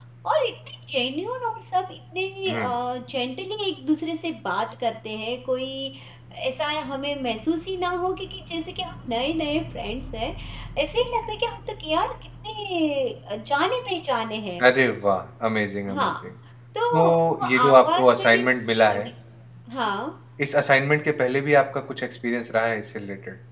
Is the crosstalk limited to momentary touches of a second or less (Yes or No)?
No